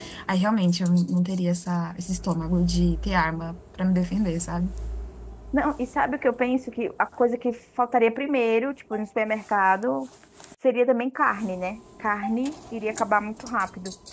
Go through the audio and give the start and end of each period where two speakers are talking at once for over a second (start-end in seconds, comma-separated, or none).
none